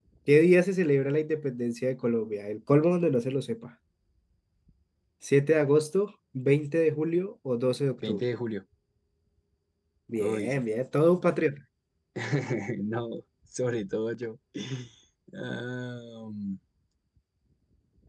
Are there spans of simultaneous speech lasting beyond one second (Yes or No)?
No